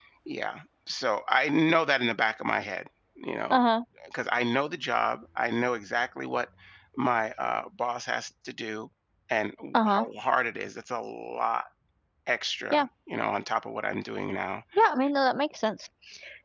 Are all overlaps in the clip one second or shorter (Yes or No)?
Yes